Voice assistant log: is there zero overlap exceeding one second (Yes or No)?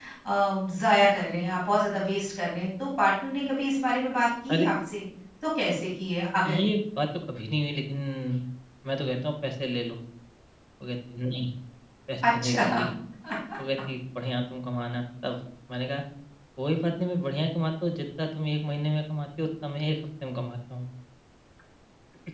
Yes